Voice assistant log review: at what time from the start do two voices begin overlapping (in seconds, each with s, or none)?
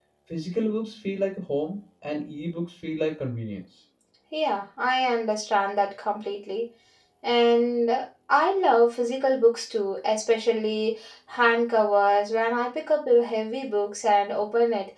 none